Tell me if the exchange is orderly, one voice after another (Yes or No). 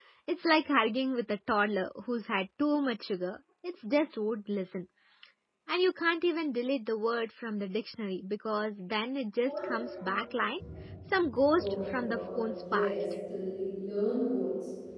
No